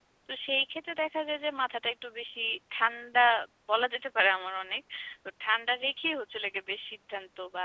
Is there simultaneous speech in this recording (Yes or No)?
No